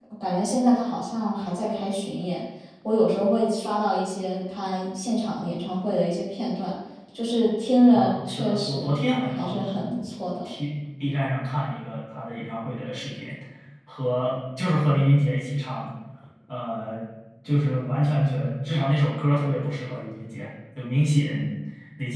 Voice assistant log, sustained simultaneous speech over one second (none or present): present